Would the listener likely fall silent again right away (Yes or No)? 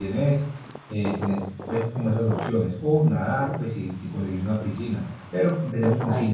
No